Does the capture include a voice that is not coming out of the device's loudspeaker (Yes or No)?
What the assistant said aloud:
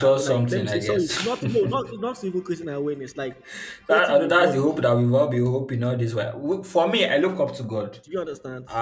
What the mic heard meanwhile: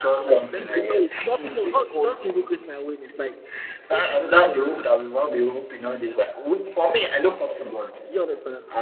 Yes